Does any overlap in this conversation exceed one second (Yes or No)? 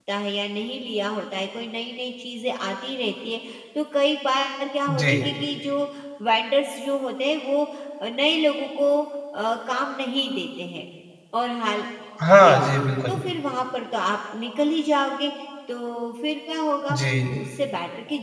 No